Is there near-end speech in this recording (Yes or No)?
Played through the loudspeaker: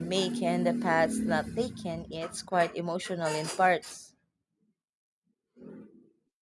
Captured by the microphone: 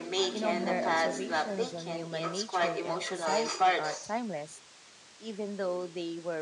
Yes